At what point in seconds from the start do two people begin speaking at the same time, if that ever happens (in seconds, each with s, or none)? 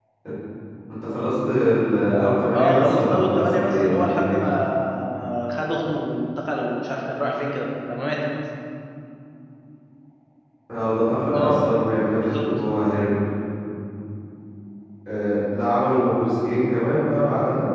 2.5 s